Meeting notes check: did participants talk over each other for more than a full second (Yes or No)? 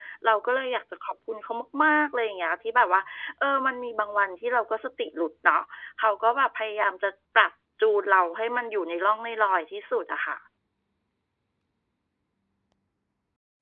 No